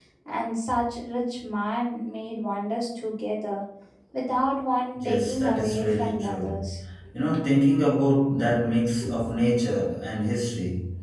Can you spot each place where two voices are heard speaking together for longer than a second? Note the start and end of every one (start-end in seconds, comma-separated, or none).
5.0-6.7